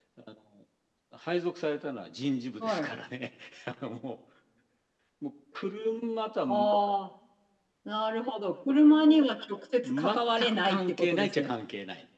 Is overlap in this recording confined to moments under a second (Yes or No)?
No